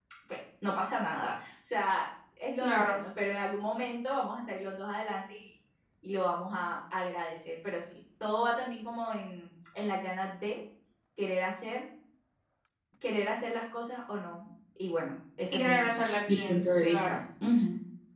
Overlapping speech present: Yes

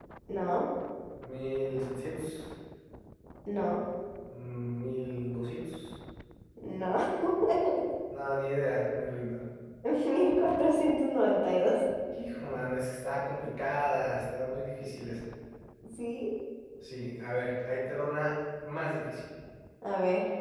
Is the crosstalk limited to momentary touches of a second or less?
Yes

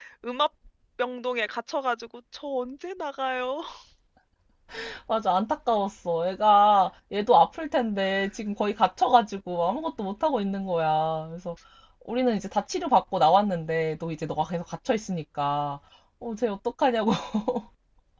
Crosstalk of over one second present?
No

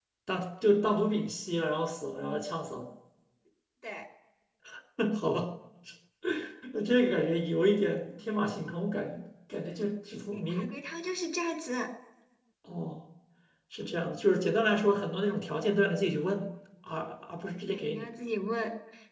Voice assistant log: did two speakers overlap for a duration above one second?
No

